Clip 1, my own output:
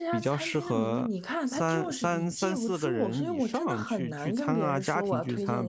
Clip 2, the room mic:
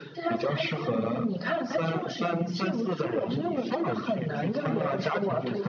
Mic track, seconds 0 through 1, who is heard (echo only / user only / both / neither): echo only